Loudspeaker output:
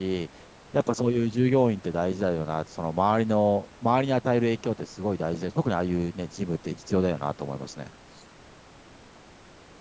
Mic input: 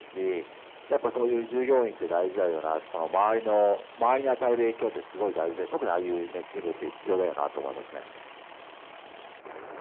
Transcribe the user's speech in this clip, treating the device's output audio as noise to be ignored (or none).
none